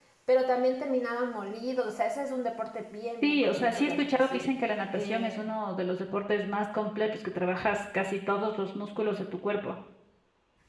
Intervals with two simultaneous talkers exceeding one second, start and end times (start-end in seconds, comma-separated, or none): 3.2-4.5